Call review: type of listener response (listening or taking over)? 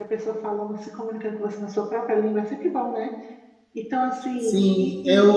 taking over